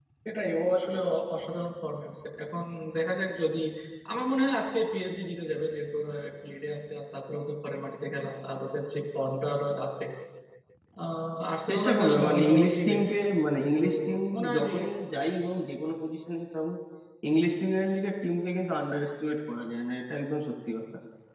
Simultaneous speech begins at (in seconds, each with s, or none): 11.7 s